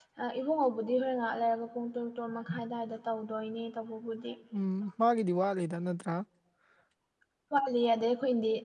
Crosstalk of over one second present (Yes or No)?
No